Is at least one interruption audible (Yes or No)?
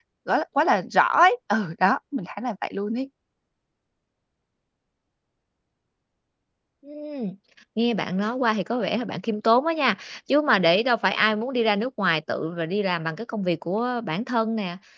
No